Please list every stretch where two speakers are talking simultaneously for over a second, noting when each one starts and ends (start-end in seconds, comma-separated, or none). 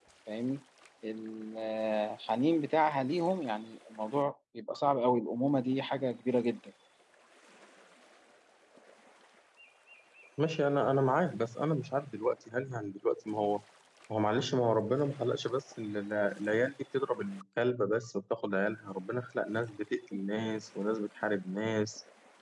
none